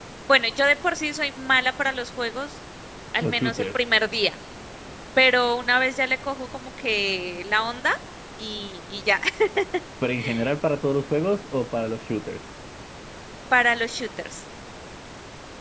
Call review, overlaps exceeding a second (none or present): none